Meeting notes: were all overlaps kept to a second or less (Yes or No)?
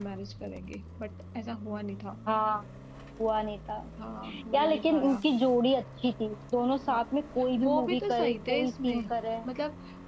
No